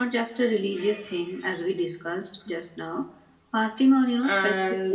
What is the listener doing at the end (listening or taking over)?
taking over